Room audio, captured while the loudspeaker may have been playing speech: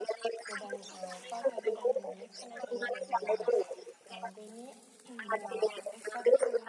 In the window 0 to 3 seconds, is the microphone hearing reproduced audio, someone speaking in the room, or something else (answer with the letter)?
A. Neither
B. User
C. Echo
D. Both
D